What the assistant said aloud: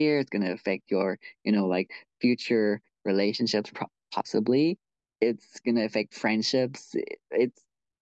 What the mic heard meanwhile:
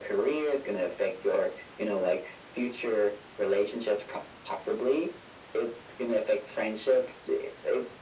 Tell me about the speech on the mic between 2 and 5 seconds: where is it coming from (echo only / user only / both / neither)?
echo only